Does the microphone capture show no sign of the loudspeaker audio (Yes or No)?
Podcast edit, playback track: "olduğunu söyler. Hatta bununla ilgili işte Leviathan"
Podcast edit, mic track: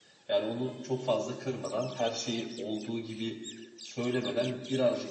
Yes